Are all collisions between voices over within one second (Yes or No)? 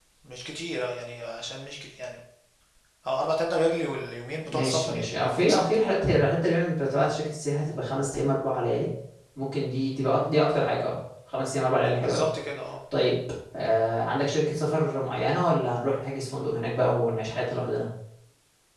No